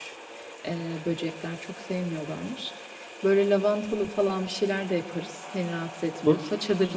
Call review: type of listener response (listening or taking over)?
listening